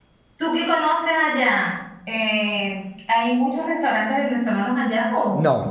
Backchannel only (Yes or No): No